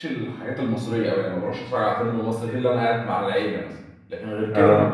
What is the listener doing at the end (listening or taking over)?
listening